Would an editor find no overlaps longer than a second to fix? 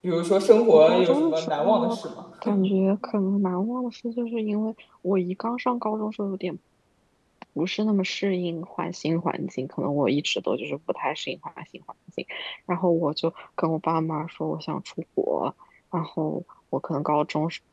No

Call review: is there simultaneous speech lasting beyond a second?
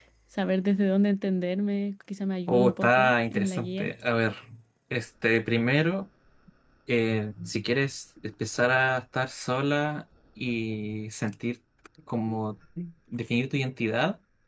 Yes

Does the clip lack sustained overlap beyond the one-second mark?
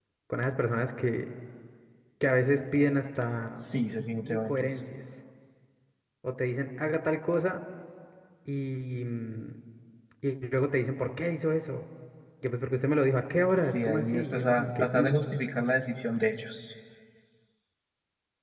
No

